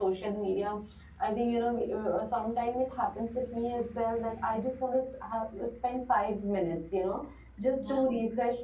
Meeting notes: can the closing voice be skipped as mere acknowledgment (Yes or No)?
Yes